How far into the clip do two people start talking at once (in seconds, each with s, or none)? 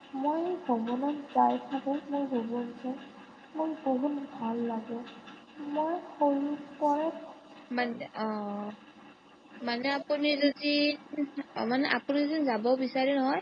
none